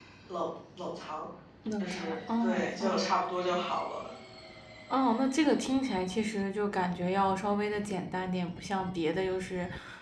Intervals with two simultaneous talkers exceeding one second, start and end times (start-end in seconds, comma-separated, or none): 1.8-3.1